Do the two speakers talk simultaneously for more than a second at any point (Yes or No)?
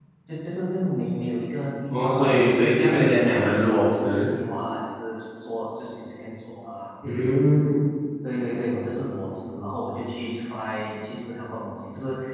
Yes